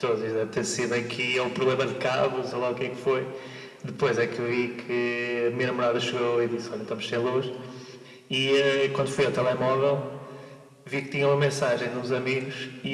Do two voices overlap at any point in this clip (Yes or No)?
No